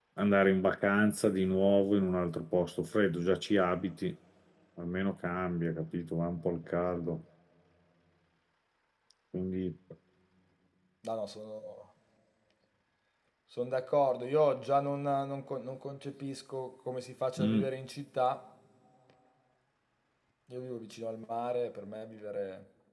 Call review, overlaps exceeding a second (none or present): none